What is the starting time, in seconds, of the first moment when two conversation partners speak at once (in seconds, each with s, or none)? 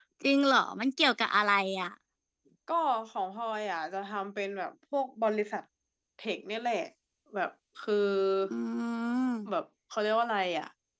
none